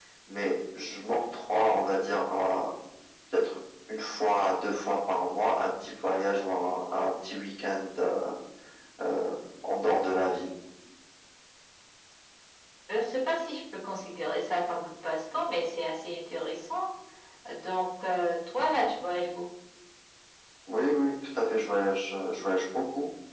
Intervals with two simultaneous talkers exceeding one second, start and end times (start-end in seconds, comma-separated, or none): none